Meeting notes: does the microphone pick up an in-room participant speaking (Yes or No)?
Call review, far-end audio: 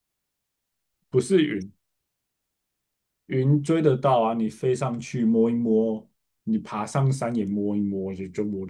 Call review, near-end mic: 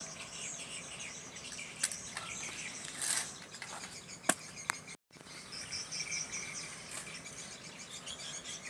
No